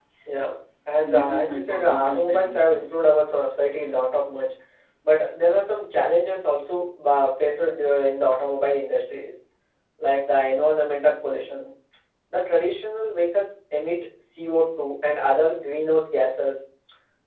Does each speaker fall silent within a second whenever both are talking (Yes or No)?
No